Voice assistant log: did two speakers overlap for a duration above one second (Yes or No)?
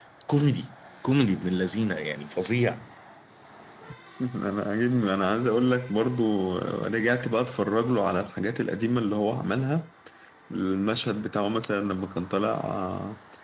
No